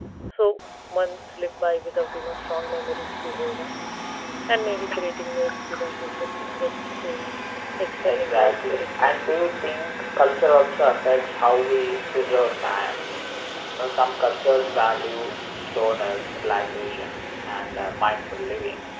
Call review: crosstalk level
present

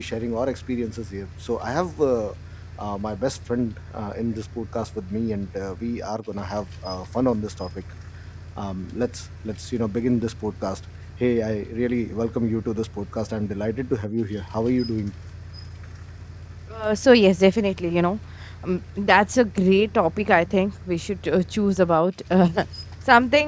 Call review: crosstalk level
none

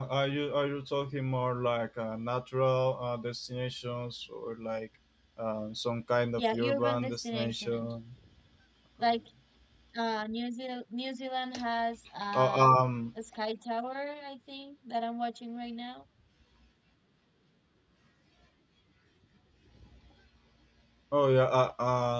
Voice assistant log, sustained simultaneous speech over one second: present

